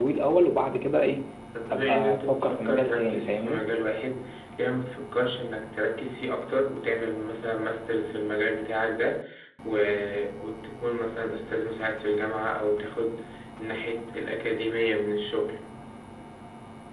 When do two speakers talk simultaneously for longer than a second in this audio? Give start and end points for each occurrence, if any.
1.7-3.6

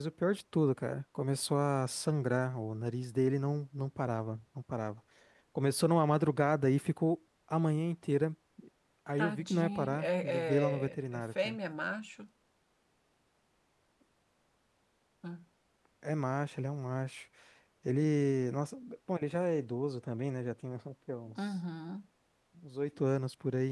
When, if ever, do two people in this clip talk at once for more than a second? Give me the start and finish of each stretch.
9.2-11.6

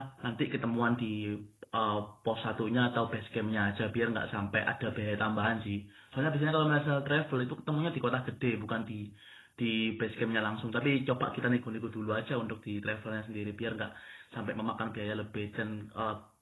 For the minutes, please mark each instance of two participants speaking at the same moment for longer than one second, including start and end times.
none

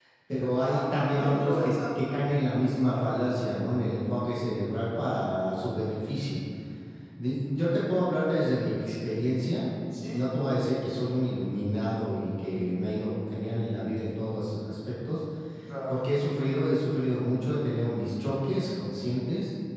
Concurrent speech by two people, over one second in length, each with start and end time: 0.6-2.0

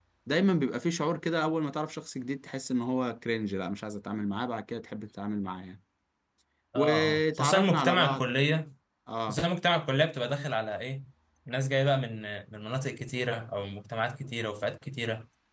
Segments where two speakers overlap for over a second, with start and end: 6.8-8.2

